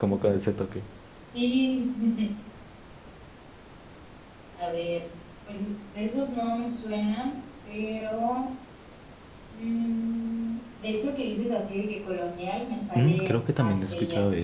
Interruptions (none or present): present